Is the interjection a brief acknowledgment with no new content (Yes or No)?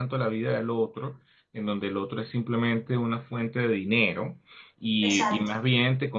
Yes